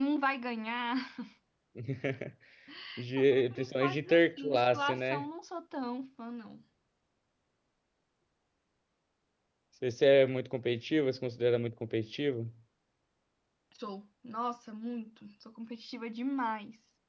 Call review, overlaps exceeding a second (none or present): present